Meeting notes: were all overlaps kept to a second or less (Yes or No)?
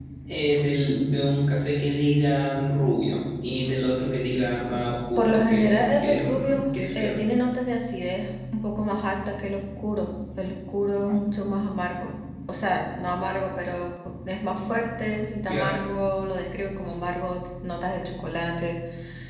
No